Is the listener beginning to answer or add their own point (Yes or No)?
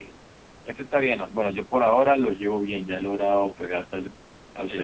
Yes